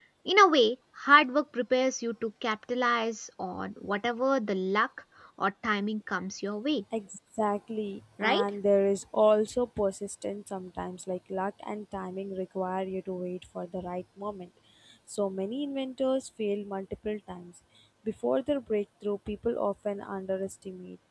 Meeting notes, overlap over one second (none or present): none